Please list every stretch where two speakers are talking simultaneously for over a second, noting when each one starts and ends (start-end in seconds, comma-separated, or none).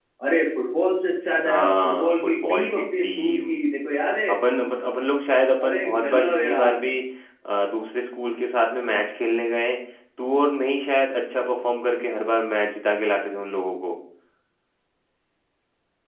1.4-3.5, 5.6-6.9